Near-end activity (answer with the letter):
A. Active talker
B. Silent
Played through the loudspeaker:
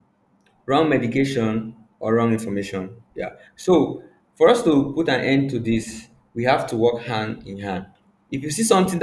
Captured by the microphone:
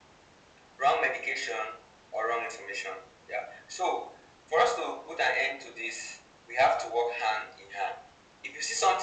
B